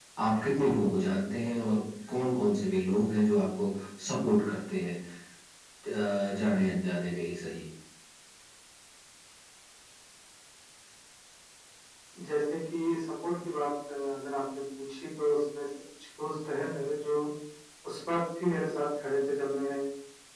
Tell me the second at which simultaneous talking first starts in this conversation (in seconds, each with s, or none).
none